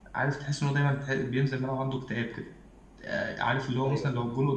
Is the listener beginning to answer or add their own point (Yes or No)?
No